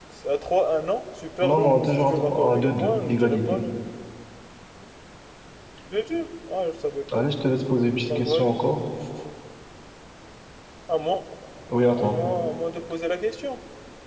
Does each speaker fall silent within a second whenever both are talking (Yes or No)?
No